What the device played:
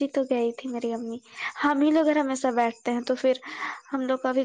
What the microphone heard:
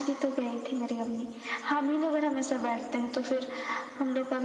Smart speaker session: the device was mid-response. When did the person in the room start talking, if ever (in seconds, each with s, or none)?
none